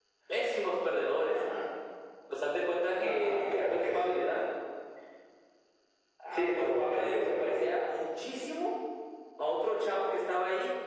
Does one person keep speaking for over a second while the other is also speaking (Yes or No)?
Yes